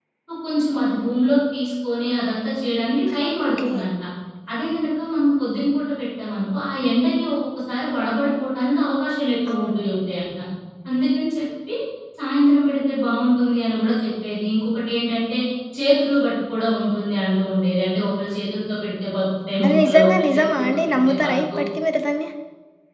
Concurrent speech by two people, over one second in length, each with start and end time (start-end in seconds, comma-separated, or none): 19.6-21.6